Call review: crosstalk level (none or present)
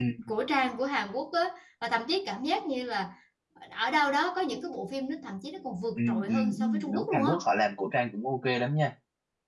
present